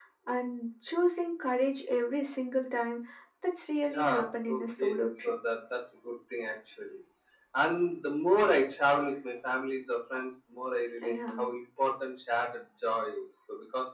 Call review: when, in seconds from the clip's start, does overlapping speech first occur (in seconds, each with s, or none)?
3.9 s